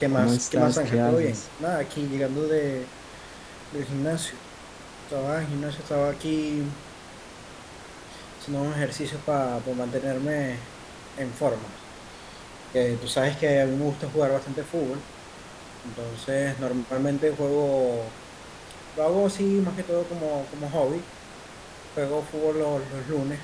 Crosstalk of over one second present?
Yes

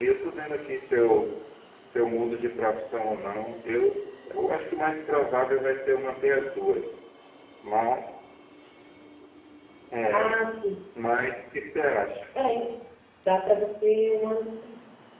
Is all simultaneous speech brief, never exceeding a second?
Yes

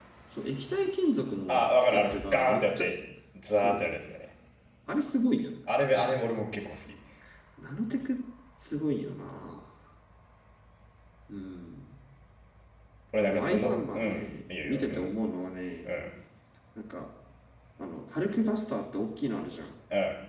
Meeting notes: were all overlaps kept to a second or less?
No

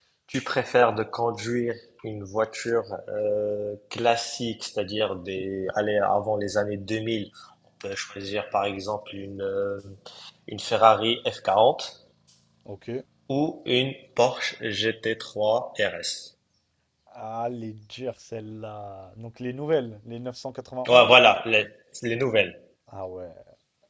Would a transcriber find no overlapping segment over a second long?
Yes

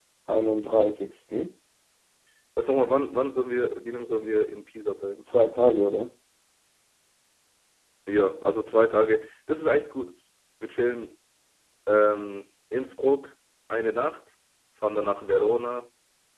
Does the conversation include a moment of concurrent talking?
No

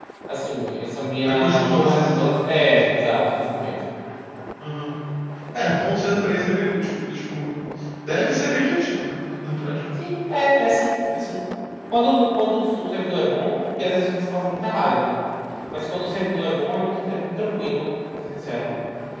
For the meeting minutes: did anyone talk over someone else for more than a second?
Yes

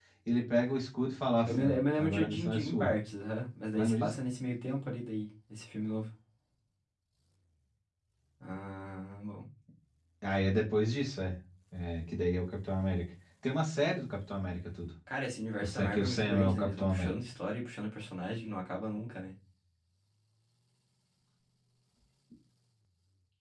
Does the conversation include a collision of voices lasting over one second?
Yes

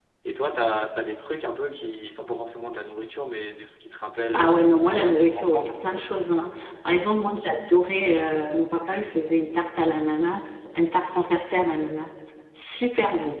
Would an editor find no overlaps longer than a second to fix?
No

